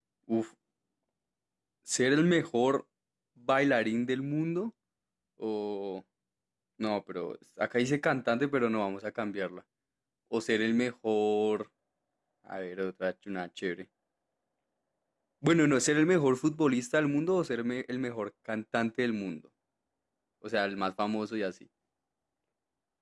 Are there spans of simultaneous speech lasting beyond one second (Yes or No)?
No